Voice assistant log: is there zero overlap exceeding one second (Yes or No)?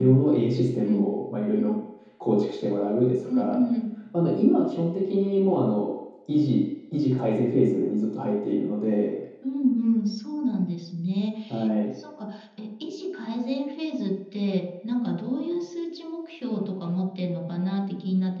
Yes